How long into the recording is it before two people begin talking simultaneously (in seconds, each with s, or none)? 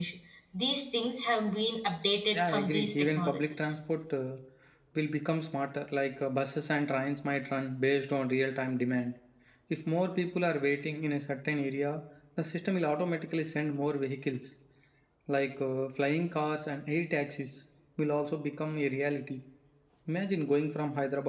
2.3 s